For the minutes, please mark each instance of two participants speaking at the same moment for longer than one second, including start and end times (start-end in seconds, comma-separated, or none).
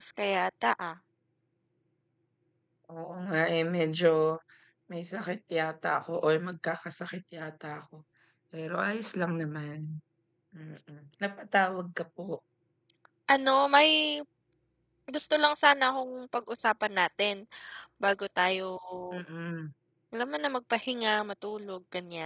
none